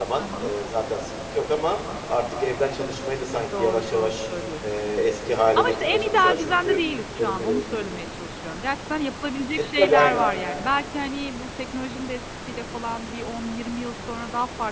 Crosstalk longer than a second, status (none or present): present